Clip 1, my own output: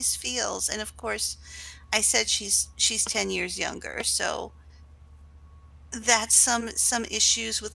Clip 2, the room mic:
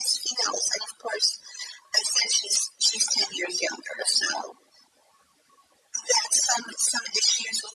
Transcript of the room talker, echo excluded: none

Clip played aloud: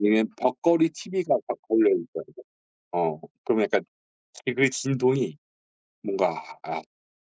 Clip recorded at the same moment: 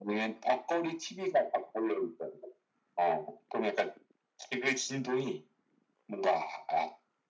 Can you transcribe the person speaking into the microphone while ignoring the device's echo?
none

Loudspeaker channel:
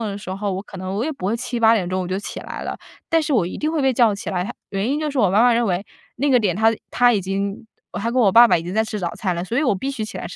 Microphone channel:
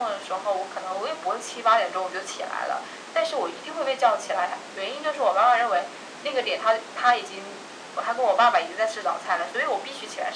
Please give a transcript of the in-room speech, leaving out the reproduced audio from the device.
none

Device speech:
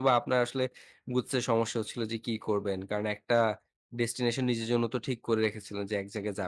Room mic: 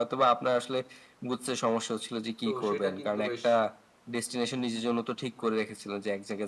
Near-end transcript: তো সেটা কিন্তু বেশ

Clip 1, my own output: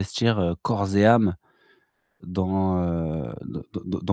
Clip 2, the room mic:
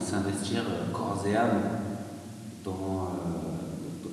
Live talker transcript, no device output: none

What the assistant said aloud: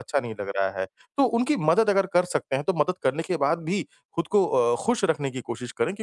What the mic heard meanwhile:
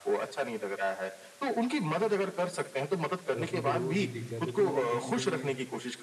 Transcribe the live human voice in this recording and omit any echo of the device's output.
और अपन को रोज़ ही दिख जाते हैं। तो मतलब कहीं न कहीं मैं

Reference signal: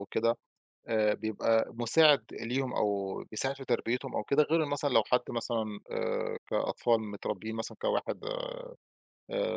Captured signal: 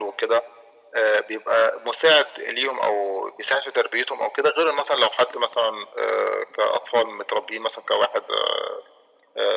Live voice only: none

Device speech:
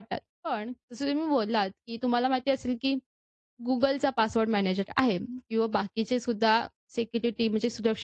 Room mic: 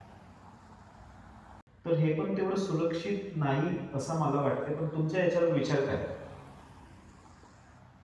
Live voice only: तर हे पण तेवढं सुरक्षित नाही असं मला वाटते. पण तुमच्या याच्यावर विचार काय?

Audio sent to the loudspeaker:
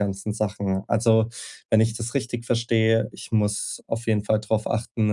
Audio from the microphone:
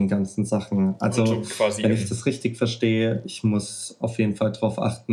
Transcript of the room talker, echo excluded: und so quasi, ähm,

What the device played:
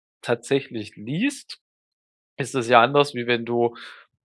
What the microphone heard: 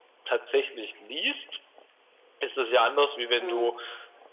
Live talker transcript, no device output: Mhm.

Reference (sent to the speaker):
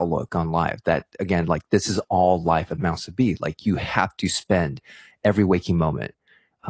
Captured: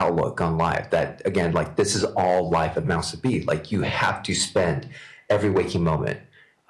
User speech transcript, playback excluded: none

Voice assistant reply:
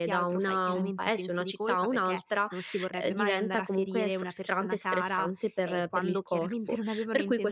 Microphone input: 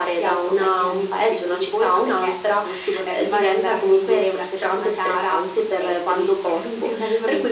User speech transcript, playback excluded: none

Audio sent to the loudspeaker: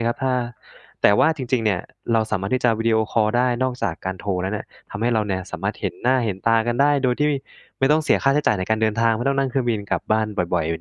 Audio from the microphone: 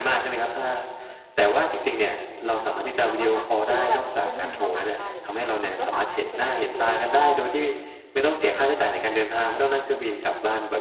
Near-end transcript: เอ่อเราก็สามหรือว่าแบบมีเพื่อนที่เป็นชาวต่างชาติอะไรอย่างเงี้ยค่ะมันก็สามารถที่จะแบบวิดีโอคอล

